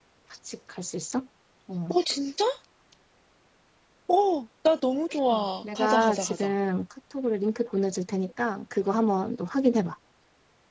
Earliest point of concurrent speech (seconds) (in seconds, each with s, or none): 5.3 s